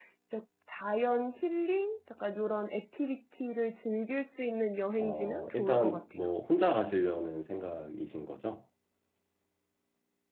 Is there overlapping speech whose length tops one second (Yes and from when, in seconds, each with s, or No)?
Yes, from 5.0 s